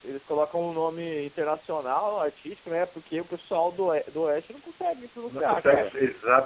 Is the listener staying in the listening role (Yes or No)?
No